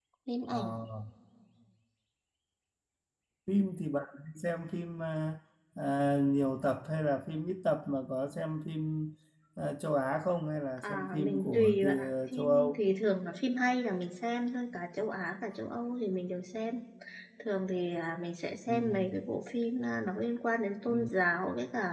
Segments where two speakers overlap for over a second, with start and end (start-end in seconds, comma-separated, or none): 10.8-12.8